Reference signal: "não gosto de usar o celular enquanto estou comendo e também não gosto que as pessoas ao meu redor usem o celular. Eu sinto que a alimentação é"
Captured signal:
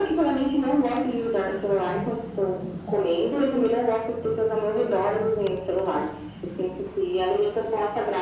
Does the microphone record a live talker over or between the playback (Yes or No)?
No